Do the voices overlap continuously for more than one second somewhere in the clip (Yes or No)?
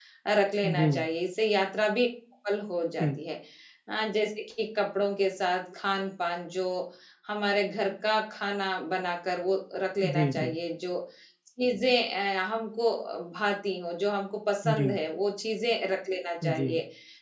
No